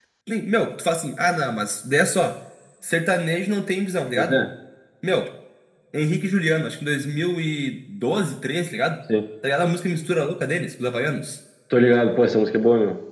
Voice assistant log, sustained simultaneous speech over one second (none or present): none